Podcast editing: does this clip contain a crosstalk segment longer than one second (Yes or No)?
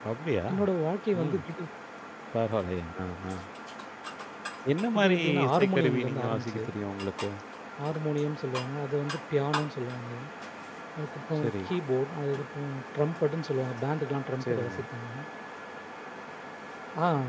Yes